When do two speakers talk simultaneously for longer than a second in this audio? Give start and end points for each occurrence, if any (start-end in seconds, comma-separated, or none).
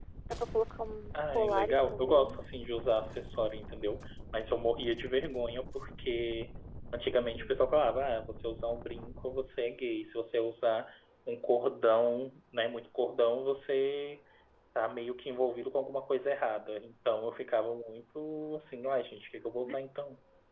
1.1-2.4